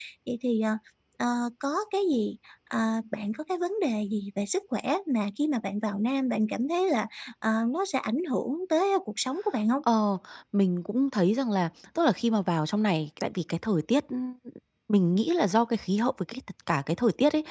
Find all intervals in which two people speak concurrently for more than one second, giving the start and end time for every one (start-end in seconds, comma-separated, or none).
none